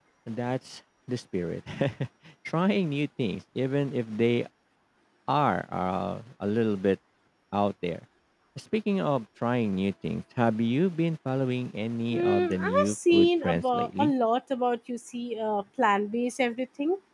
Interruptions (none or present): present